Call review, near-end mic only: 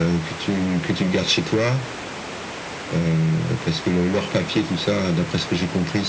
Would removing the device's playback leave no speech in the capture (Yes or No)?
Yes